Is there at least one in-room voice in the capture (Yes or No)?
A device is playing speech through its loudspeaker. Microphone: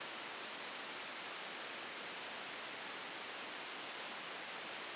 No